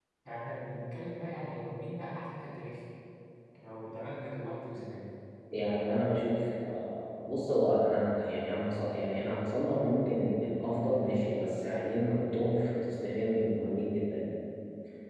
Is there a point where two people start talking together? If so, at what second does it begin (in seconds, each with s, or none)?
none